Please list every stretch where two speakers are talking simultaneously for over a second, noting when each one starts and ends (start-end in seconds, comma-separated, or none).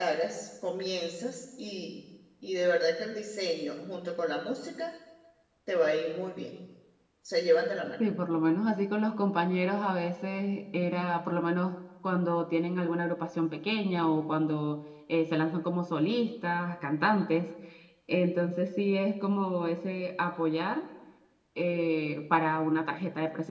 none